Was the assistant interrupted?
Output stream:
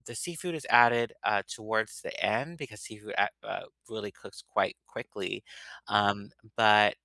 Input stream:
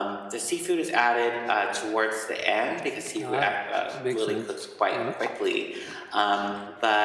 Yes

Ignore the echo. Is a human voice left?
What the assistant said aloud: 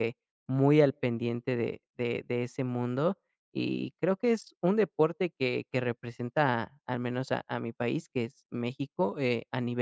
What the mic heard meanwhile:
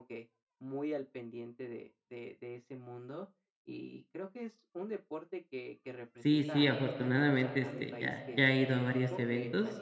Yes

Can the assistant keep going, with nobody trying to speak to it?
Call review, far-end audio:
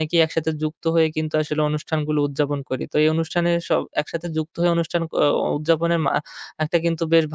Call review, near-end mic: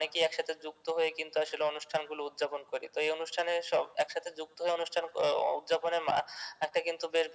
Yes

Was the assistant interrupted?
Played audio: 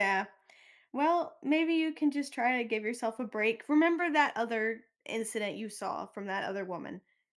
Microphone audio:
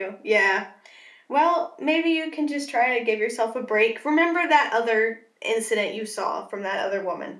No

